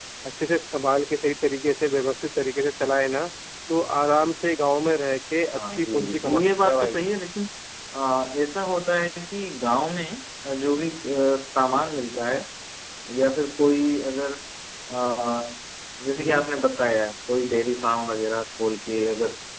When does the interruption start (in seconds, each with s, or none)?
5.5 s